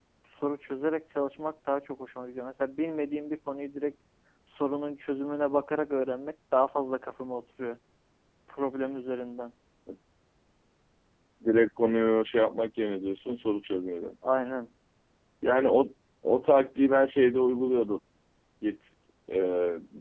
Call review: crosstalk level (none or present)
none